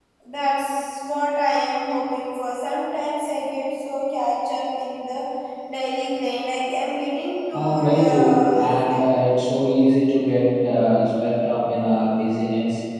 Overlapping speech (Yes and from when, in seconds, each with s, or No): Yes, from 7.5 s